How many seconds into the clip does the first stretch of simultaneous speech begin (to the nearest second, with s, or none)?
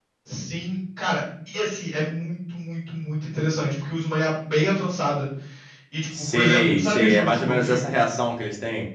6 s